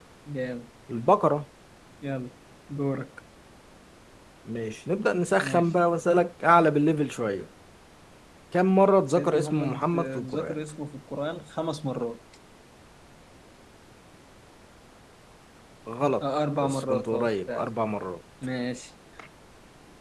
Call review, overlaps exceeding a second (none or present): present